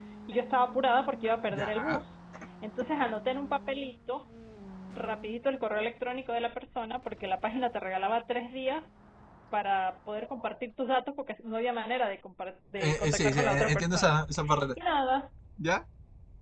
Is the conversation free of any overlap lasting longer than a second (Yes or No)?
No